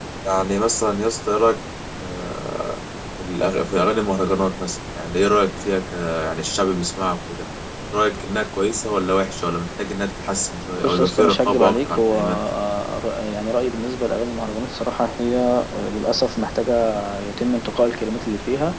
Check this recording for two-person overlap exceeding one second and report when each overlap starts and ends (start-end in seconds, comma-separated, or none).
10.8-12.3